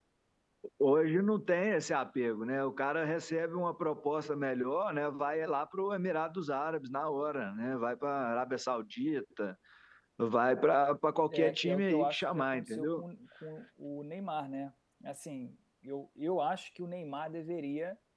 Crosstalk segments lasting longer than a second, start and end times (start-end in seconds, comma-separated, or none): 11.3-13.0